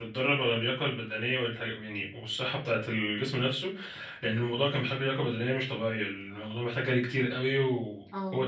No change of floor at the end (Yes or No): Yes